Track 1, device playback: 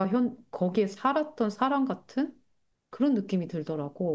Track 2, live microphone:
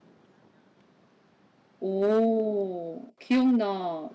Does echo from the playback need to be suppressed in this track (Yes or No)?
No